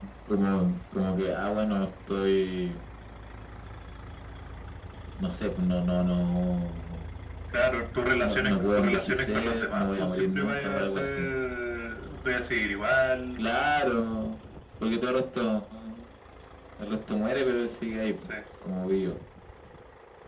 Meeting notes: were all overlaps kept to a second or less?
No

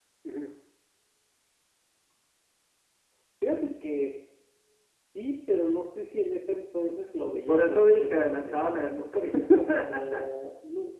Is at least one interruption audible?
Yes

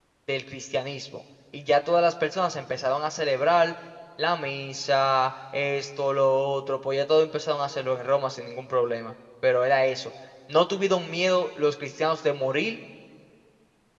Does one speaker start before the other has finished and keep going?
No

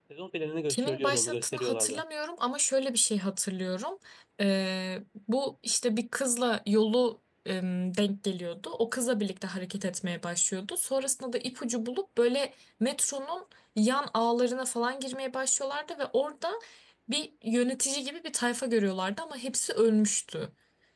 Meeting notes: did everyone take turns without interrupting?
No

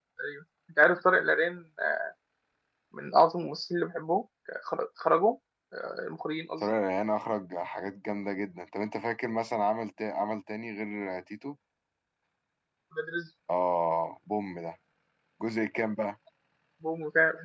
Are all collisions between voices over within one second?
Yes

